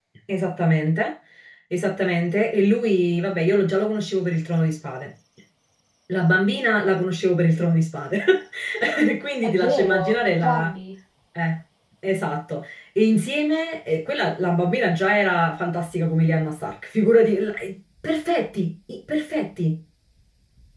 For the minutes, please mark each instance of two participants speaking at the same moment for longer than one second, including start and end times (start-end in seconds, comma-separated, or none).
9.4-10.7